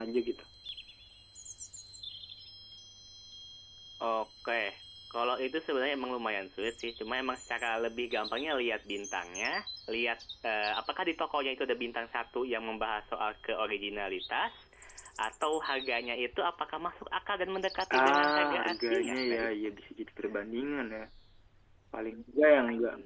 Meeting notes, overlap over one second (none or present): present